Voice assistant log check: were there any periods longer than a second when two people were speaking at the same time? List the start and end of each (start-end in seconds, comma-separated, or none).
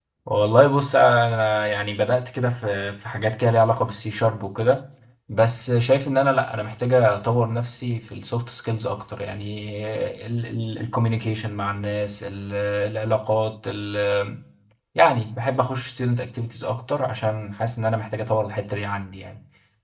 none